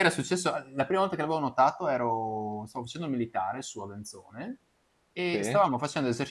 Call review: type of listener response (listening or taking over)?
listening